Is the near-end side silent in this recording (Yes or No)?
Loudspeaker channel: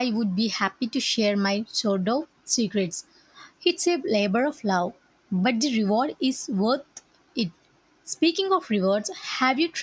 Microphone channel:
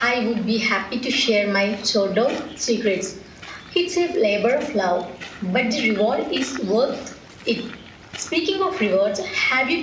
Yes